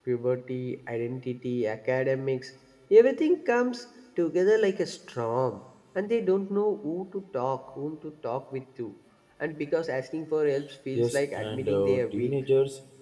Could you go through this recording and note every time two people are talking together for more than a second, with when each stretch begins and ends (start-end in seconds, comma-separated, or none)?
10.9-12.3